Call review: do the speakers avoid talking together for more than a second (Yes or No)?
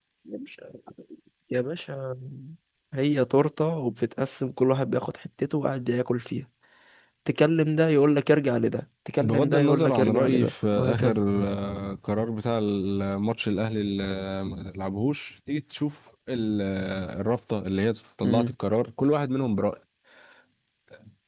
No